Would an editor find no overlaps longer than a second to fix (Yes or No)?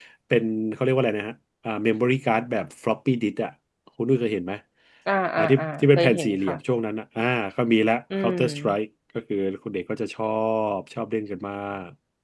No